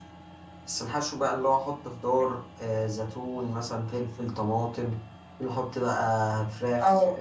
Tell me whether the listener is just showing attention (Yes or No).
Yes